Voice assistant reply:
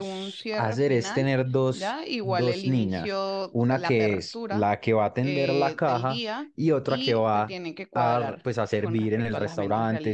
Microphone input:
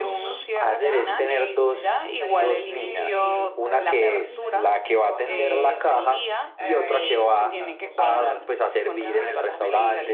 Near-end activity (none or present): present